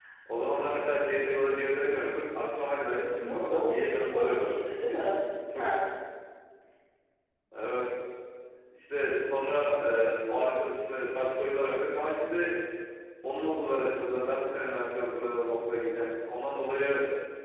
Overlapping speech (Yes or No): Yes